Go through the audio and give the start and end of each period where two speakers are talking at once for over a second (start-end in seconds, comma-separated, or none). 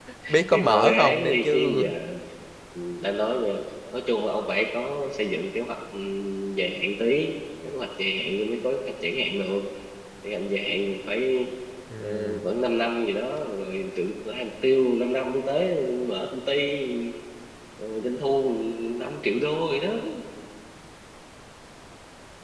0.5-1.8